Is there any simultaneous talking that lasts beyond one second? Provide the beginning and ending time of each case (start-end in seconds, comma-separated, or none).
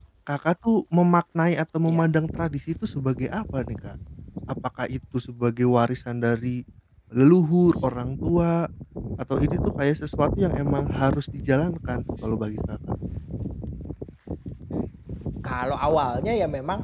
none